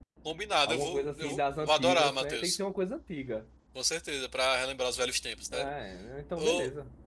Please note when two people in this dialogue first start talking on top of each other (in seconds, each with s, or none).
0.6 s